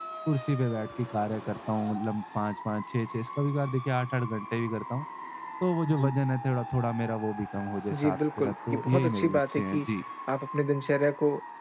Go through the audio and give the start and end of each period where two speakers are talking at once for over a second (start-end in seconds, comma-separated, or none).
7.9-9.9